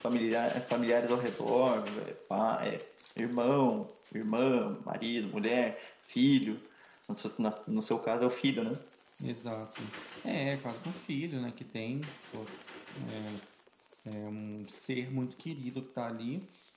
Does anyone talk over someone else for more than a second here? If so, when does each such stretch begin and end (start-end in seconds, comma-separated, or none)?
none